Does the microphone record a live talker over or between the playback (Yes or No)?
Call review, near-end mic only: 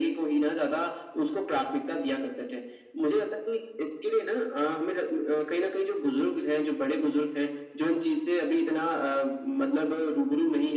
No